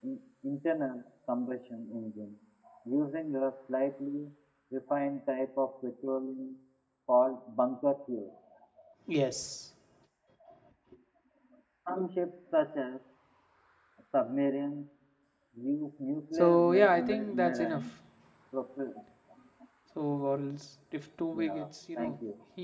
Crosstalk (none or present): present